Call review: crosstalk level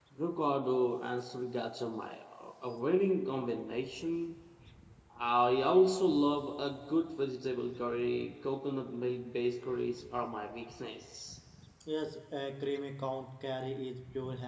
none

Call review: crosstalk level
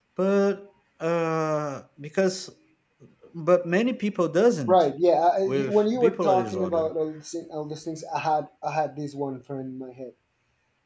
present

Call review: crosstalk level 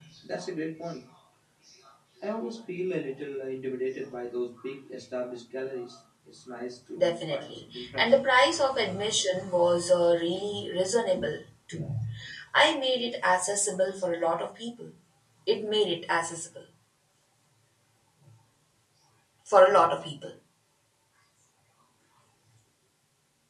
present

